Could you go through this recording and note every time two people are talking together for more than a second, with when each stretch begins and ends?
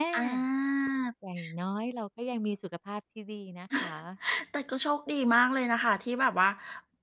none

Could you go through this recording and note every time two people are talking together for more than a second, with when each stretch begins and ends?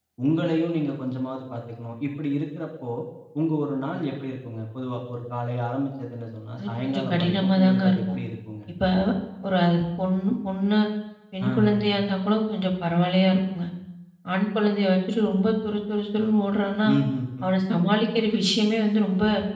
6.7-8.2

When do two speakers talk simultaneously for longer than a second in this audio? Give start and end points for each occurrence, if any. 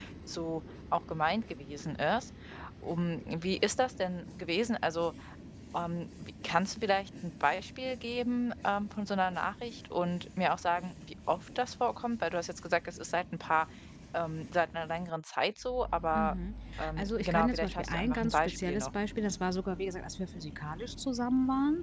17.0-18.9

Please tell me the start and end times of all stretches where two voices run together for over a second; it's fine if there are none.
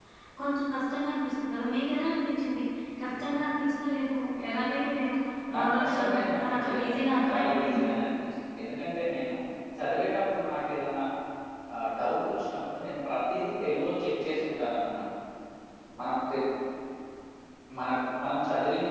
5.5-7.9

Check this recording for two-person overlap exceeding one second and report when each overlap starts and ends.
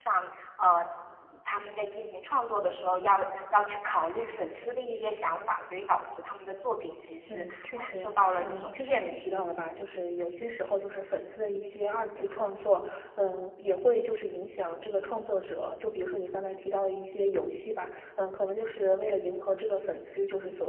7.3-9.3

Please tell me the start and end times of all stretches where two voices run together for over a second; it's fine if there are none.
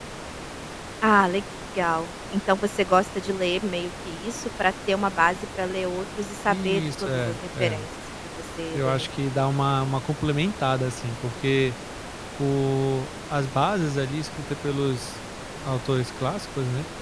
6.5-7.8

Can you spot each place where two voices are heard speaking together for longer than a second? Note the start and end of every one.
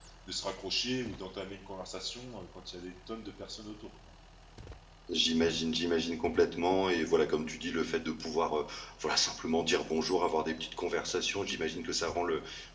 none

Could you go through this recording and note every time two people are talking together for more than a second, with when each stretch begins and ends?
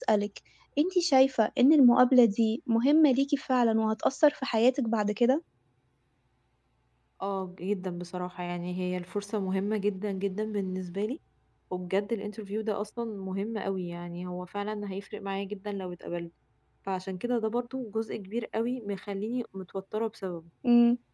none

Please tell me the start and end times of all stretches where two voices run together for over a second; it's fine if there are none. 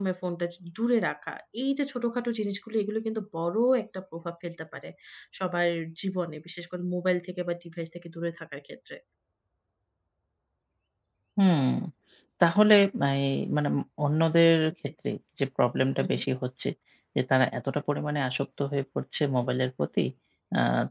none

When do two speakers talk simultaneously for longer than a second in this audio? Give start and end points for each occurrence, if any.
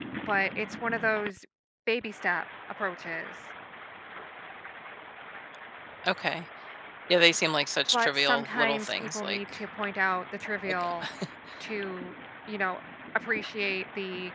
7.9-9.4

